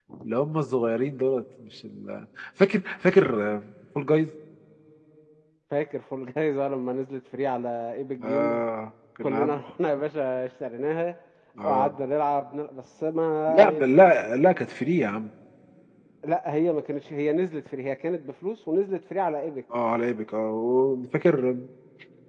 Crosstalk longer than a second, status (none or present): none